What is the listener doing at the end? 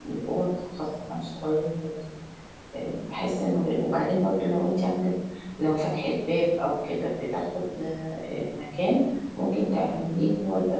listening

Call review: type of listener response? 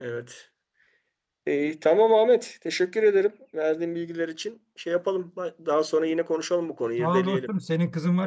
taking over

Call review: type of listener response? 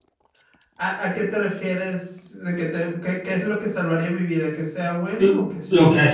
taking over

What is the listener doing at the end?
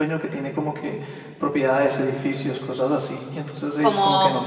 taking over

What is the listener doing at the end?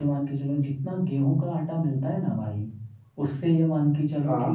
listening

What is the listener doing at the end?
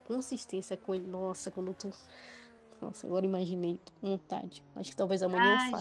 taking over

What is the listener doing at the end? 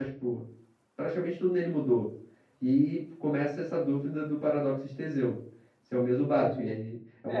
taking over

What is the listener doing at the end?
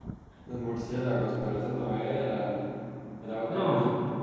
listening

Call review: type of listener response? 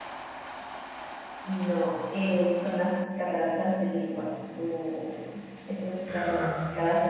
listening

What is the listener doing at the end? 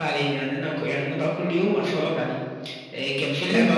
listening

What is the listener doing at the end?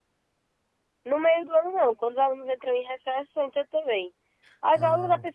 listening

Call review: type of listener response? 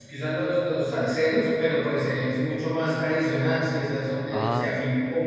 listening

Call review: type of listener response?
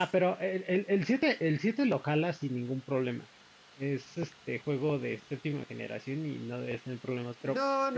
taking over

